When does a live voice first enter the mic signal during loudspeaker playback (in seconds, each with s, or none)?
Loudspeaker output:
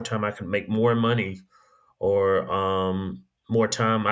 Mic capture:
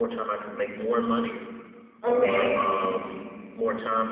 2.0 s